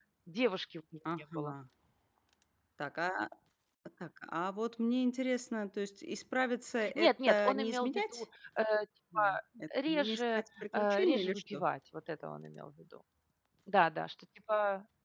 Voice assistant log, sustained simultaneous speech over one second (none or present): present